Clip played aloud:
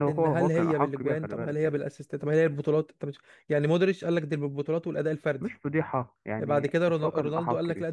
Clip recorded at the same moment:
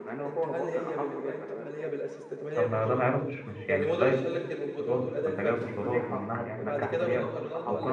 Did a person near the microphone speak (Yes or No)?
Yes